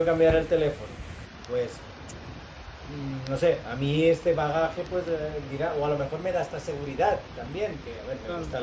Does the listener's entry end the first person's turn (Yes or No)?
No